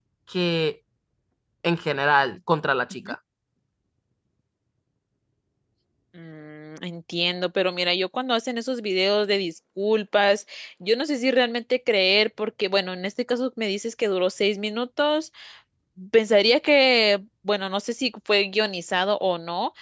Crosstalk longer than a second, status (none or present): none